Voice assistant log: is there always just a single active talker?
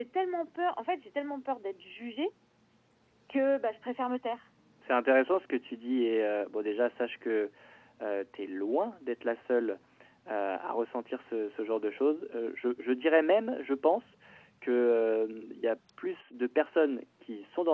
Yes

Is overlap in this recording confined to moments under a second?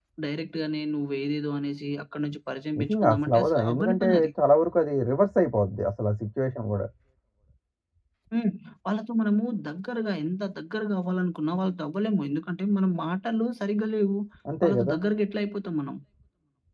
No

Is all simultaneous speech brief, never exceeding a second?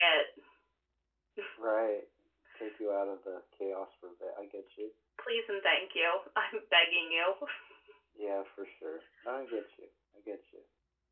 Yes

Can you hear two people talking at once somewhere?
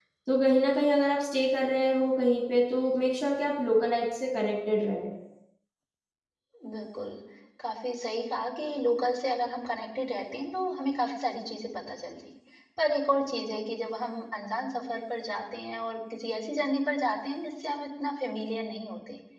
No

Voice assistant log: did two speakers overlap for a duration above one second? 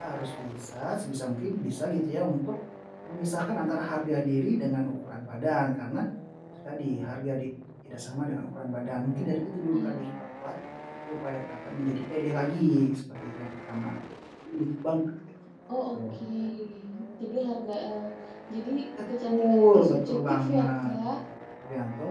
Yes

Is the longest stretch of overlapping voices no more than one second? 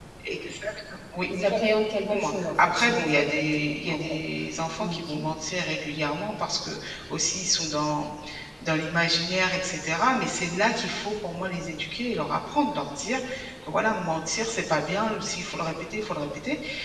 No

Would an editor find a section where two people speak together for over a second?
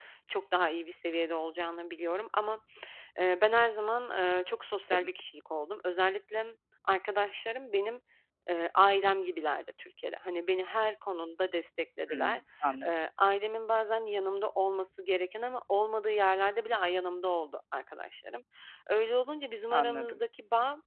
No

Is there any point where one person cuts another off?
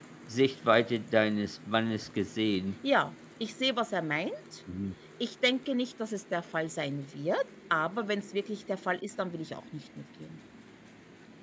No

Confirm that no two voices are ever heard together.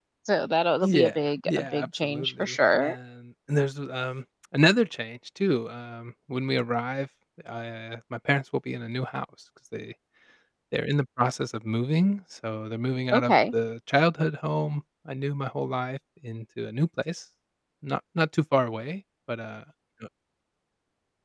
No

